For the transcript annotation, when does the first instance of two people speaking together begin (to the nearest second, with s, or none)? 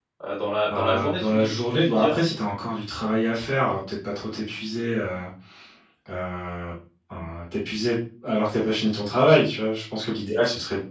1 s